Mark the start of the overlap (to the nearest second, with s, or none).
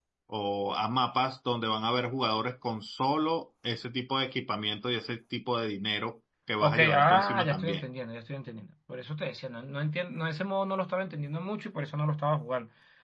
7 s